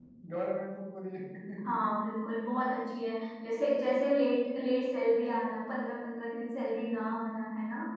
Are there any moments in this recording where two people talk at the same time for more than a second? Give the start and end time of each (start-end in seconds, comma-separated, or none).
none